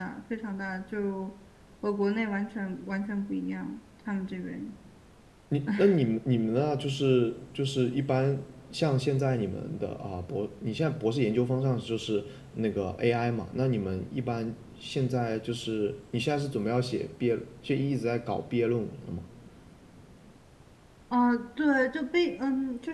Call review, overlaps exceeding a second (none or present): none